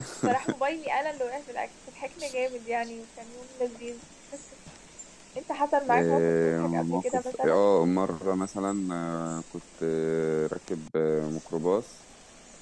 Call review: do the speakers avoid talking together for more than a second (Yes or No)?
No